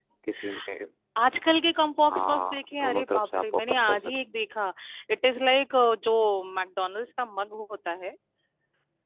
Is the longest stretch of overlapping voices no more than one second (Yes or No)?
No